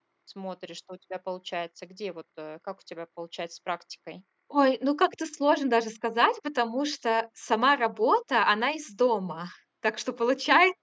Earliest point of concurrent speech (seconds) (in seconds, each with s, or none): none